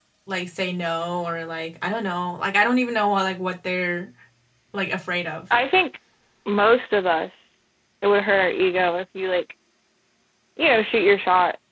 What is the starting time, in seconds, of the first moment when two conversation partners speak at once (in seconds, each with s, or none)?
none